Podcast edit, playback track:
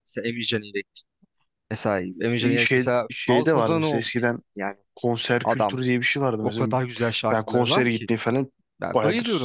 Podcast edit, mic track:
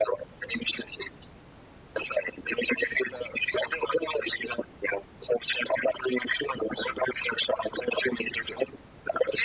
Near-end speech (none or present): none